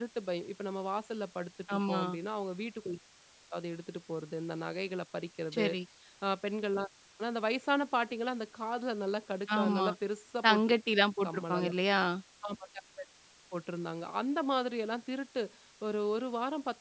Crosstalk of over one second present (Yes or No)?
No